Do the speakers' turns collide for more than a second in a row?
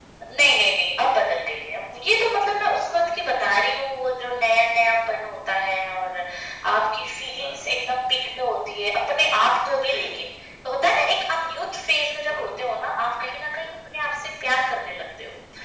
No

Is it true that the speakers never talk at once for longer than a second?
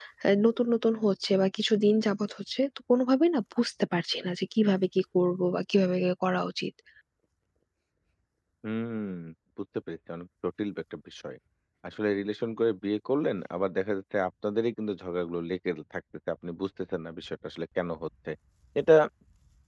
Yes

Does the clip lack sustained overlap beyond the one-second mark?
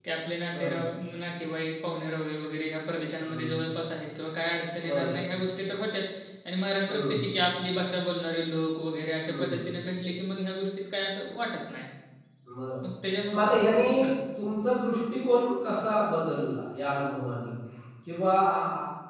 Yes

